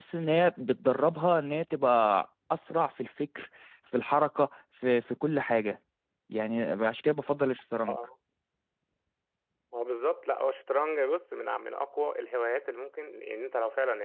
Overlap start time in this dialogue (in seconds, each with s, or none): none